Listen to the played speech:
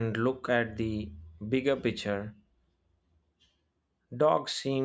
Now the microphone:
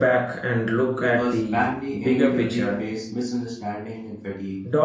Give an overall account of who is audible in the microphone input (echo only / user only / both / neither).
both